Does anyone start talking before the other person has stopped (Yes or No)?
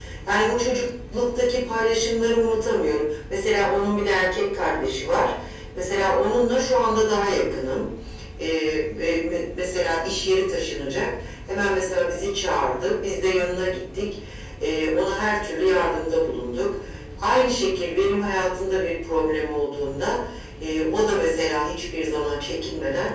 No